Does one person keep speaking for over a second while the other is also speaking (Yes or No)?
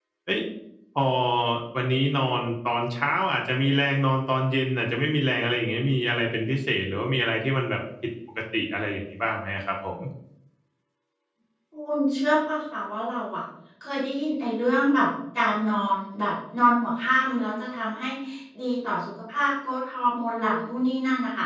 No